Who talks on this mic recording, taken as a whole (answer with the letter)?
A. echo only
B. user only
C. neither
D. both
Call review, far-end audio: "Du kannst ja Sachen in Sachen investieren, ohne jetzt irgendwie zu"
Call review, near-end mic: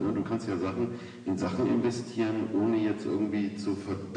A